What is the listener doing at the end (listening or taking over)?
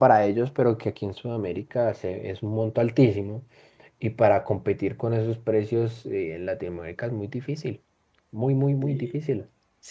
taking over